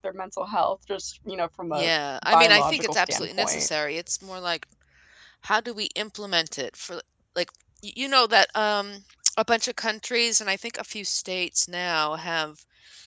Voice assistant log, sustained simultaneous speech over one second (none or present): present